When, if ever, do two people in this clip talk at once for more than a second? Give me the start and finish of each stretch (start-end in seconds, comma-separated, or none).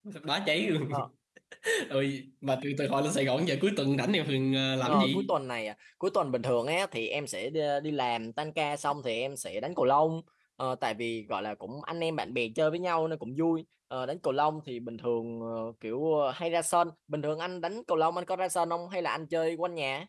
none